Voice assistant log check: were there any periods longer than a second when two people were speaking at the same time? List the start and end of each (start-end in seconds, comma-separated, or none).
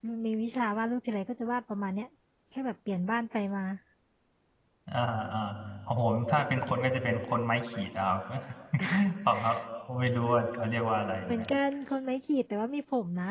none